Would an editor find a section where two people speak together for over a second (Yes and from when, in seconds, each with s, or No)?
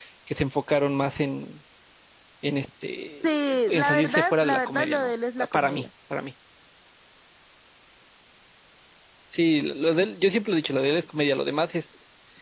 Yes, from 3.2 s